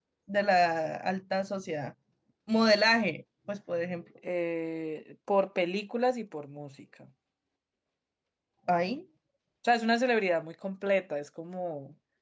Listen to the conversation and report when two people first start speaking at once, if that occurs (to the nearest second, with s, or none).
none